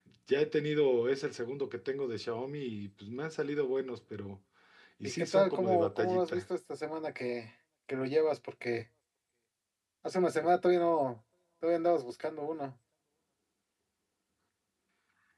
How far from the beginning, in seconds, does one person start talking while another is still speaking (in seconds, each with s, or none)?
5.0 s